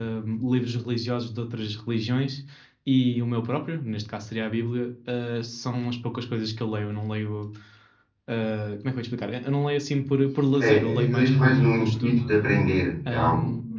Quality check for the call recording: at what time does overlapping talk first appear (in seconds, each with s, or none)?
10.6 s